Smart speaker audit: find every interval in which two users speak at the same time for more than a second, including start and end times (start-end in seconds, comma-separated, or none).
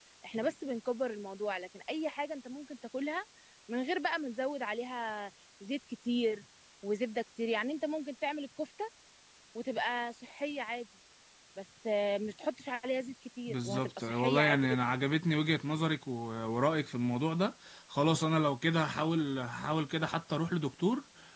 13.5-14.8